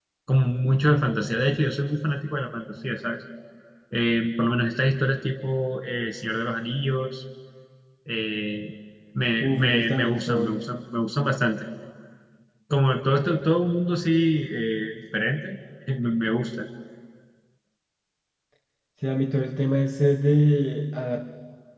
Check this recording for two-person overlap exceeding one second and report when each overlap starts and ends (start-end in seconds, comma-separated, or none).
9.4-10.7